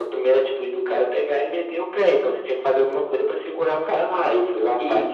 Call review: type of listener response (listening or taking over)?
taking over